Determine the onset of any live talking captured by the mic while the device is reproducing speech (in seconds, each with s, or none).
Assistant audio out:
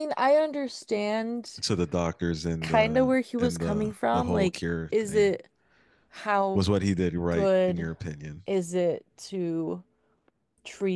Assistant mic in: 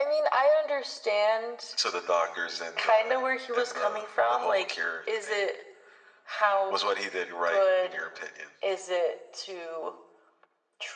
none